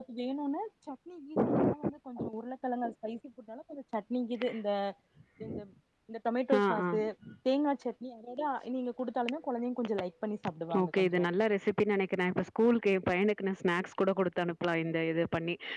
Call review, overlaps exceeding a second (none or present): none